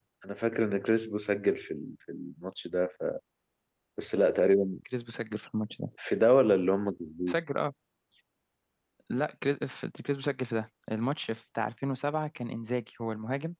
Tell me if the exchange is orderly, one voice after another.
Yes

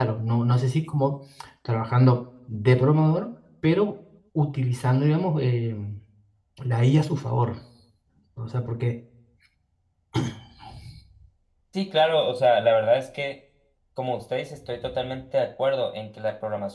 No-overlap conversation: Yes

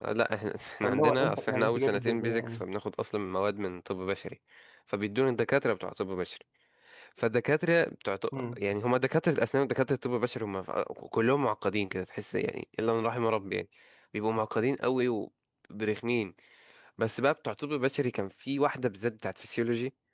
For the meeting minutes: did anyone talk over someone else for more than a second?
Yes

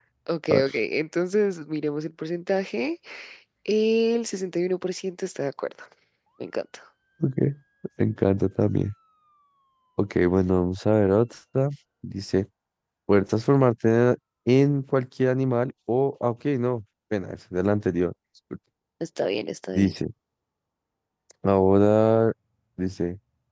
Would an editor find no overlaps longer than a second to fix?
Yes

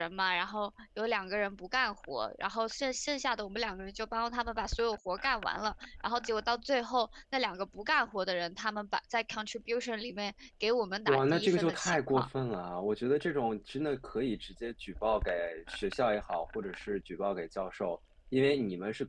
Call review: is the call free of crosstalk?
No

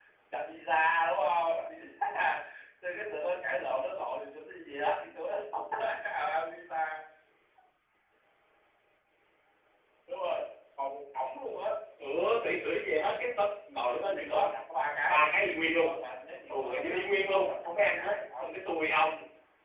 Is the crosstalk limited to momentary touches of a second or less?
No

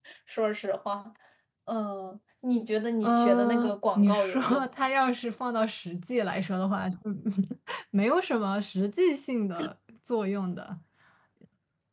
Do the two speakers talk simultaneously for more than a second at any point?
Yes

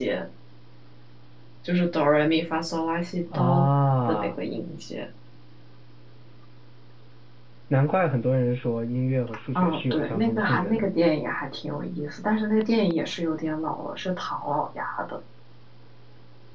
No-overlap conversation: No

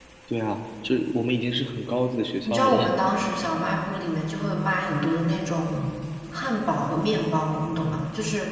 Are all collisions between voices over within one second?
Yes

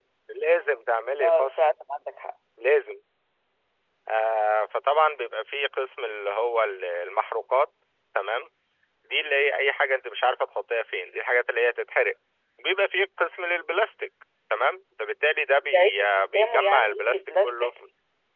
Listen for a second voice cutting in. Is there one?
Yes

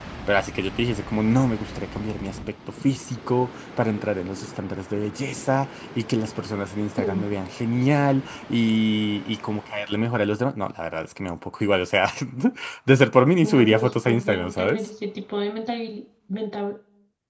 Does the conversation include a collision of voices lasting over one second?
Yes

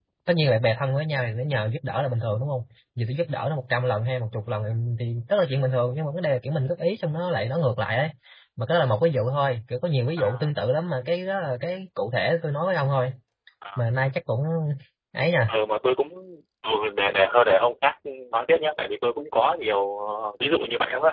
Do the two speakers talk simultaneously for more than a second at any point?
No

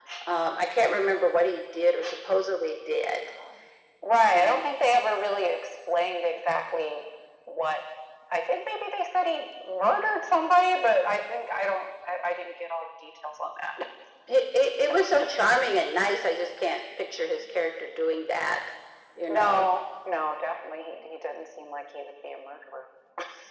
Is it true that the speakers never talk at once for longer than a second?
Yes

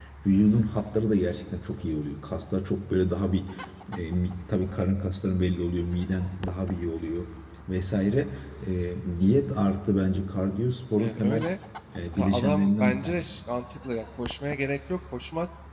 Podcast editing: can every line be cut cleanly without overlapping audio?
No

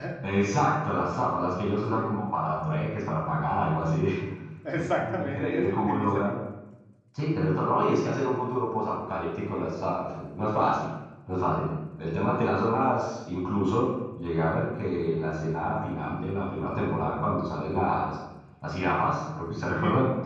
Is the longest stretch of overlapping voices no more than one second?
No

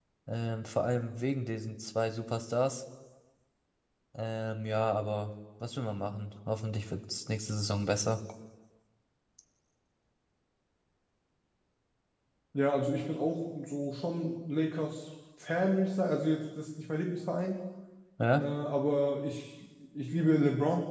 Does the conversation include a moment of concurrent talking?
No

